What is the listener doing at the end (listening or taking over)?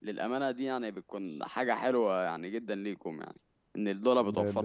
taking over